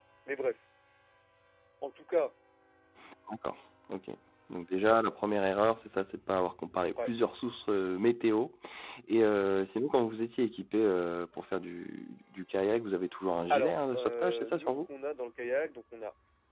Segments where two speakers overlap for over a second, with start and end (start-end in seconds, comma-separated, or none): 13.5-14.7